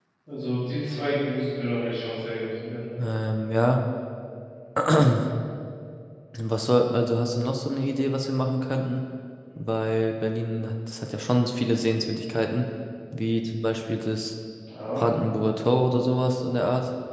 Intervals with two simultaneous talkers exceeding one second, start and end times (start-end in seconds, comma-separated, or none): none